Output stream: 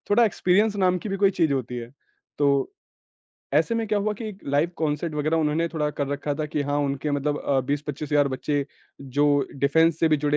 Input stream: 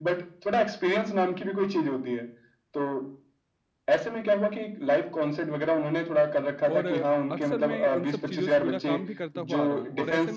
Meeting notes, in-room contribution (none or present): present